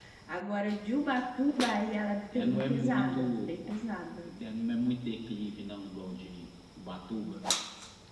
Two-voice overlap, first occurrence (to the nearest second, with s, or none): 2 s